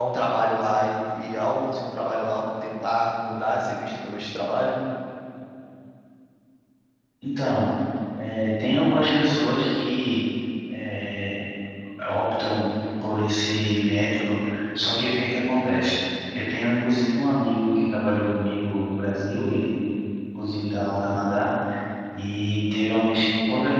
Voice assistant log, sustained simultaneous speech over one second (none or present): none